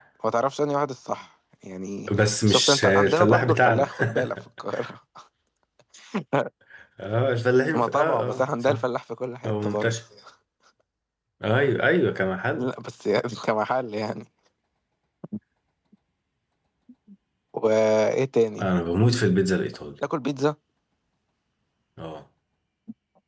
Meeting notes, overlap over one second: present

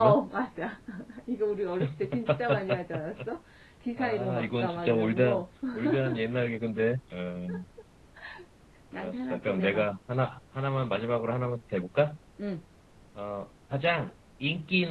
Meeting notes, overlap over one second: present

